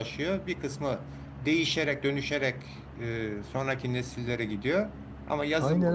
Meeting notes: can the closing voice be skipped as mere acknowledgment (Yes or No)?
No